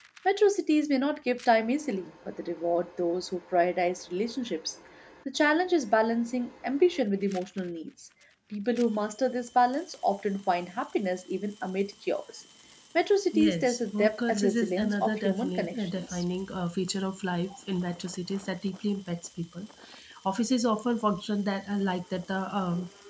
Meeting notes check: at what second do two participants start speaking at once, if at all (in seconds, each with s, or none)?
13.3 s